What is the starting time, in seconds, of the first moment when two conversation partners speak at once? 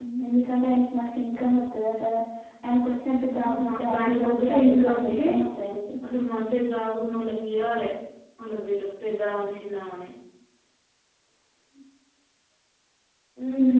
3.3 s

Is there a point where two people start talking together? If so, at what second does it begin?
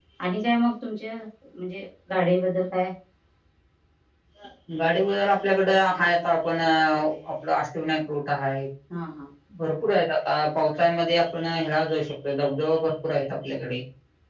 none

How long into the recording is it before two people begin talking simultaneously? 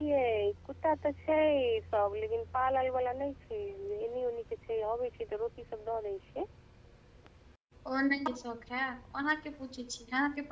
none

